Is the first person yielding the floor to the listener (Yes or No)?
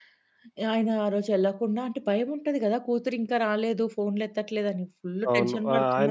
Yes